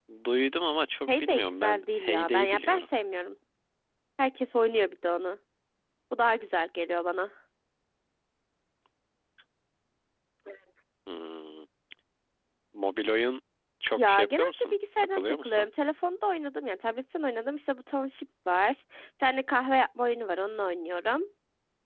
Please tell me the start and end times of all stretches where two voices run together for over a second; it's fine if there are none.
1.1-2.8, 13.9-15.7

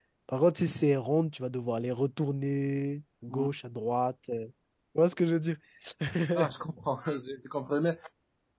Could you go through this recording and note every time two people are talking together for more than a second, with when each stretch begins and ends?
none

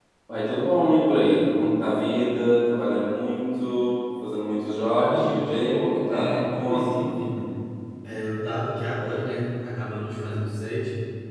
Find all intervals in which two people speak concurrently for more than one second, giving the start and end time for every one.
5.0-7.1

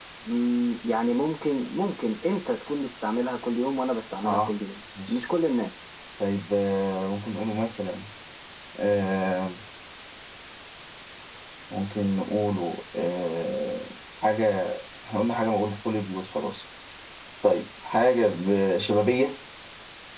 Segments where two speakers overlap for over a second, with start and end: none

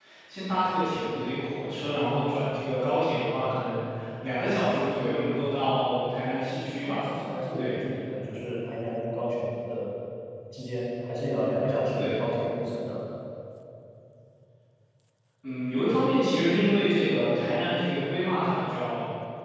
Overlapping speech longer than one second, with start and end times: none

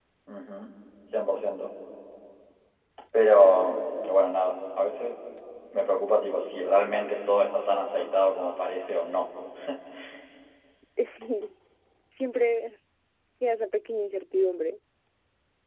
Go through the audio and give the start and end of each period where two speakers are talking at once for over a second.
none

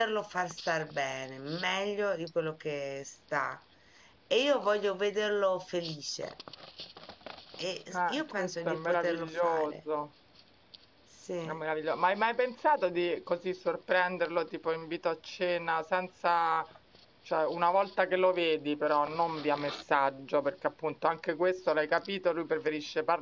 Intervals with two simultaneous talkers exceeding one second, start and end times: 7.9-9.7

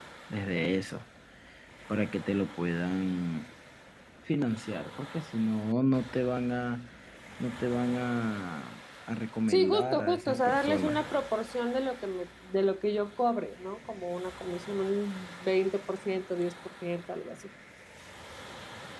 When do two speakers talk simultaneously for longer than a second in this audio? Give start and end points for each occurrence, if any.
9.5-11.0

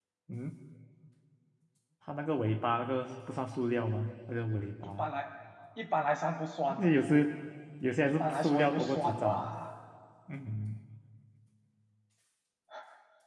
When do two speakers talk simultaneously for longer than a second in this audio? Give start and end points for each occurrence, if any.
8.1-9.6

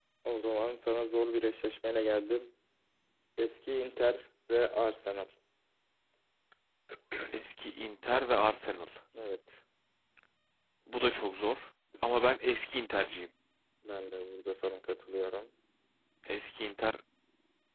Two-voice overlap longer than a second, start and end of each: none

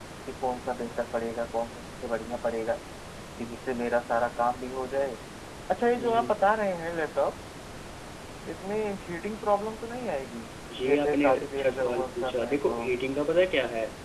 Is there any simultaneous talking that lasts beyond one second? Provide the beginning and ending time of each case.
10.8-12.8

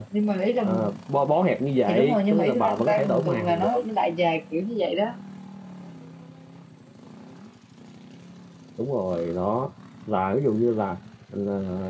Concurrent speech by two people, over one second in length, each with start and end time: 1.9-3.7

